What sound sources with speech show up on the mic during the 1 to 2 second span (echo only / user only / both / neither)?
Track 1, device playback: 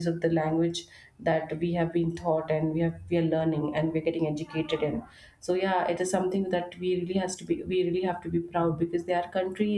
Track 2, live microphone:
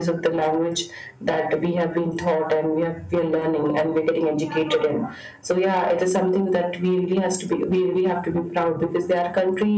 echo only